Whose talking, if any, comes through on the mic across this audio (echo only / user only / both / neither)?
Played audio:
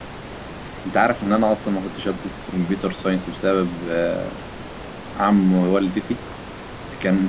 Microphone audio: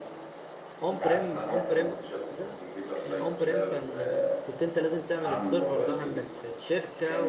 both